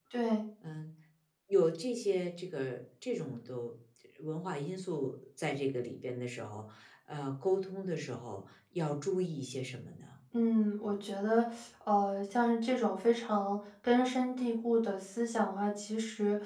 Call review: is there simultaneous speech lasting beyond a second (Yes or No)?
No